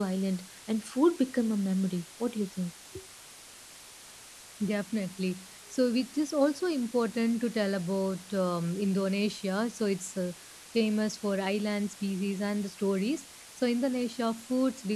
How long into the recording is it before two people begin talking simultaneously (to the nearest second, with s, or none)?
none